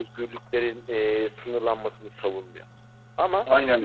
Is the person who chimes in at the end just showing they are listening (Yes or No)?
Yes